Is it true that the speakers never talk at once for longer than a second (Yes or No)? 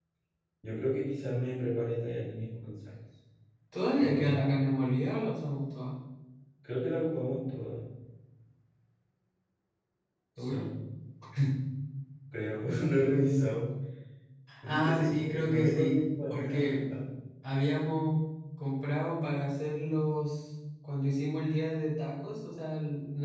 No